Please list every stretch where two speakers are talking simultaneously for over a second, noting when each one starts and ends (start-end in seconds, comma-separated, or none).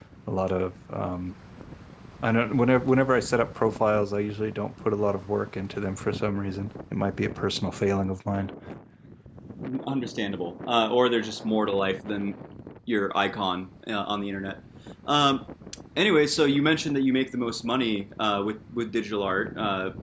none